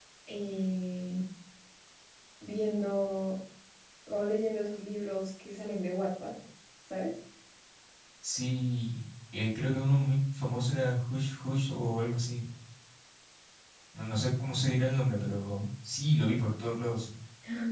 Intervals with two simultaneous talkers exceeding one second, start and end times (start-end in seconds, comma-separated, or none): none